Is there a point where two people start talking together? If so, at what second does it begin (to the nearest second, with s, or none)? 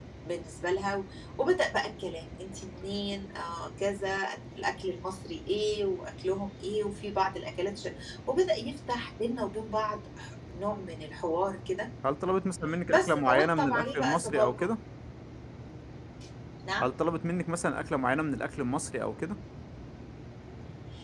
13 s